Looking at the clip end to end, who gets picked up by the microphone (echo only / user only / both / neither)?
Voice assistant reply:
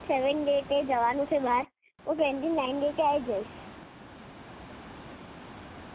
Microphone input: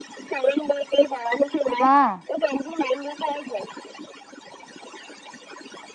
both